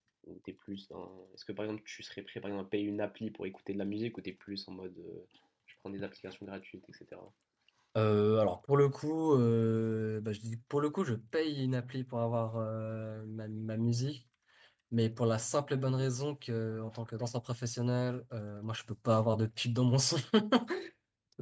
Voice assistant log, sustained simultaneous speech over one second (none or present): none